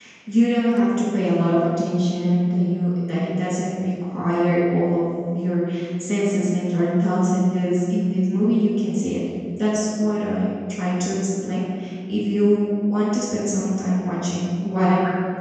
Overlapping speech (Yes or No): No